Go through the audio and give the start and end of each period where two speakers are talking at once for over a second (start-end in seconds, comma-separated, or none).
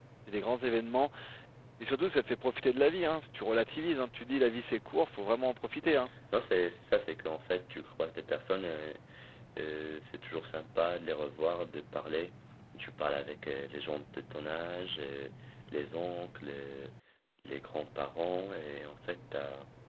none